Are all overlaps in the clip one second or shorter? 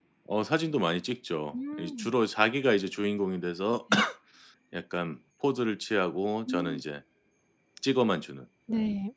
Yes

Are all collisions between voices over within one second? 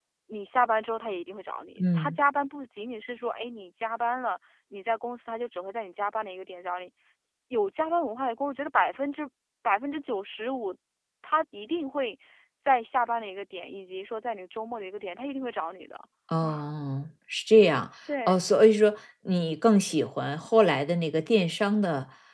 Yes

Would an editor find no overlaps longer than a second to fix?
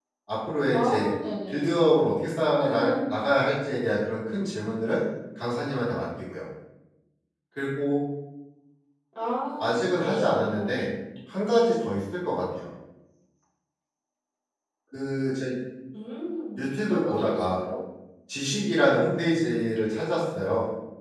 No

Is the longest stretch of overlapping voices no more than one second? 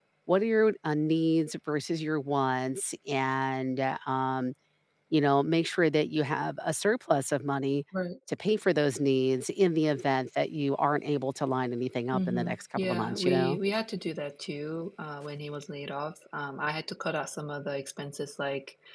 No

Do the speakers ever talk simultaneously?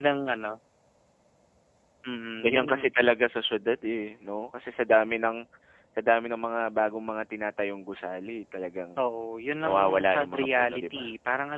Yes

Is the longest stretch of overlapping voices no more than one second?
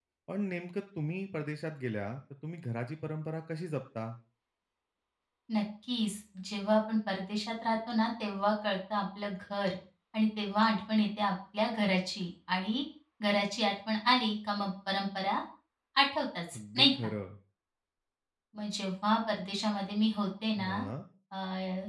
Yes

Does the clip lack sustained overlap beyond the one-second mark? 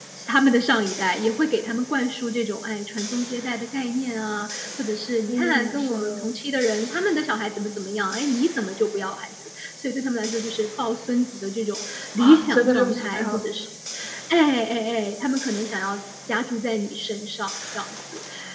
No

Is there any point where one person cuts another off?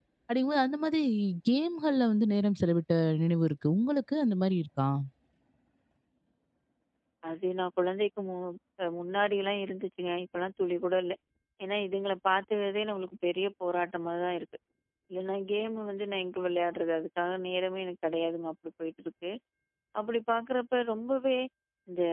No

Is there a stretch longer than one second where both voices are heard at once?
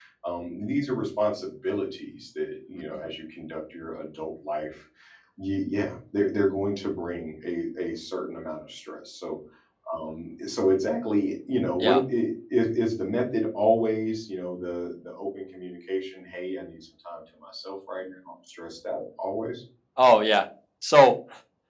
No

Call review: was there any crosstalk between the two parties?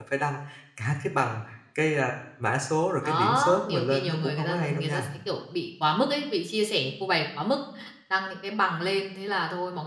Yes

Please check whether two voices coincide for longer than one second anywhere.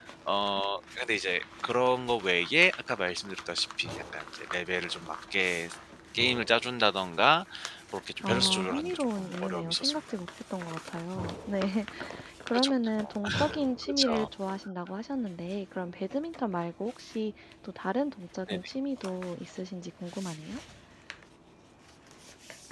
Yes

